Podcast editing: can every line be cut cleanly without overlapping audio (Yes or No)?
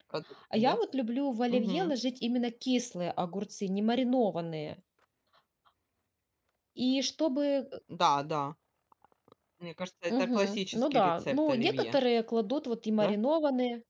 No